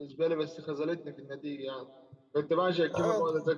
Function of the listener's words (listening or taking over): listening